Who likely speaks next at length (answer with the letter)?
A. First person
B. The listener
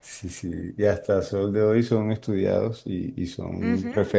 A